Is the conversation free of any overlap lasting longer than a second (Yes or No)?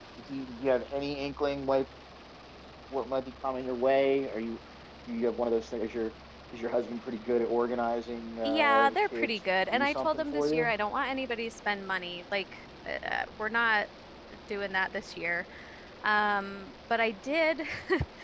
No